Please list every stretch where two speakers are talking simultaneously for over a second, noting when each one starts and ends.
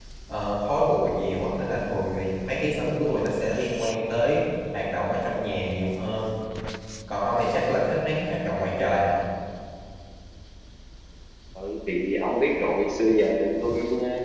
none

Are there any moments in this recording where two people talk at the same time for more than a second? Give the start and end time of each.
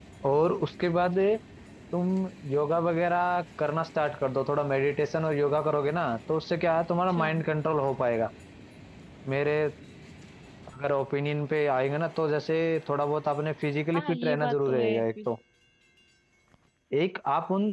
14.0-15.3

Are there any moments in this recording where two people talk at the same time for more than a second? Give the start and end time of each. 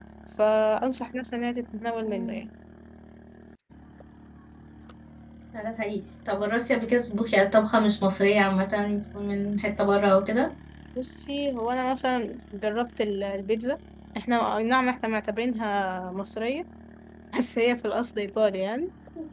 none

